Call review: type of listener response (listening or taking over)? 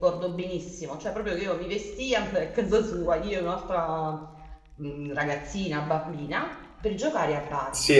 taking over